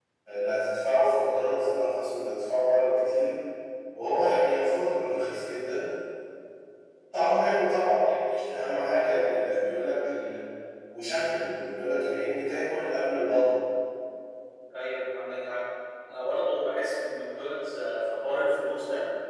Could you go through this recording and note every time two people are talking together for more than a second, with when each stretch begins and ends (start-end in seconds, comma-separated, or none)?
none